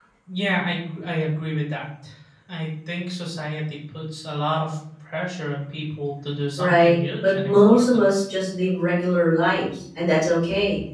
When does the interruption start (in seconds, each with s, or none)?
6.6 s